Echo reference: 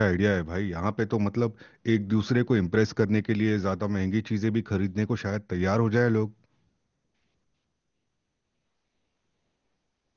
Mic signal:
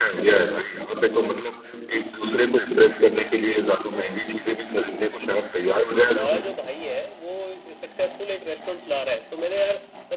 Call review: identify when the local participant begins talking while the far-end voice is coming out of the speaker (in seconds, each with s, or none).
6.0 s